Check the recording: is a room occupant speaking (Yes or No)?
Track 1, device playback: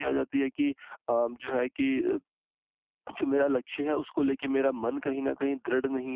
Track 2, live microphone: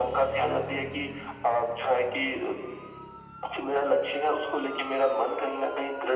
No